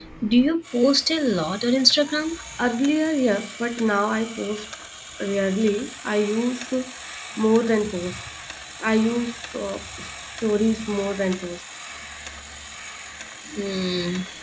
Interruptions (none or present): none